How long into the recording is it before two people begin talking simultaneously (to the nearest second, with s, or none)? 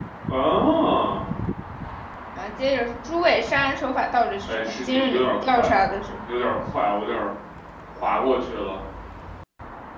4 s